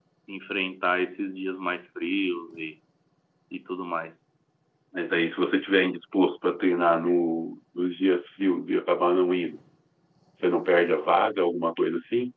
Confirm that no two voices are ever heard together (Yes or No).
Yes